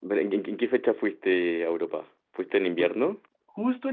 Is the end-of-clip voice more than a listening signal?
Yes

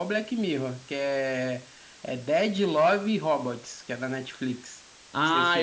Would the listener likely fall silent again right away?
No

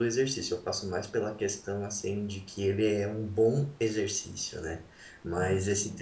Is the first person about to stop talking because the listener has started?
No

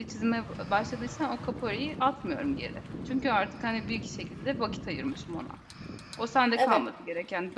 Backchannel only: Yes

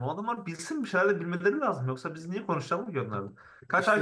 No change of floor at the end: Yes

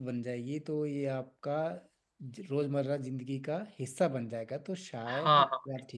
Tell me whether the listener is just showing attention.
No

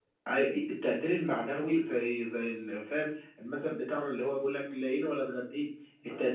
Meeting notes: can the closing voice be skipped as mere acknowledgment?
Yes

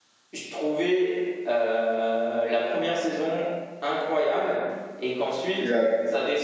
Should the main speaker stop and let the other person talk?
No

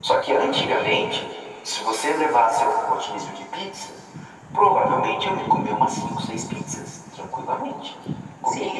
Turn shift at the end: No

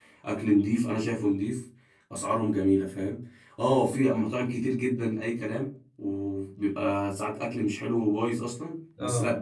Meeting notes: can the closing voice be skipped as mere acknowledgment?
Yes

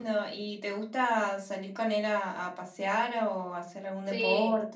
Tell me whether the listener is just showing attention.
No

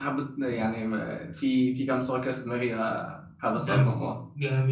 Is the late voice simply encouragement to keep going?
No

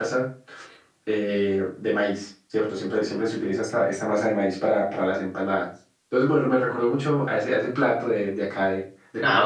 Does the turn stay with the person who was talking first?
No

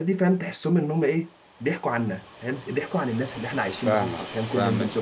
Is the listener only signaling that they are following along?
No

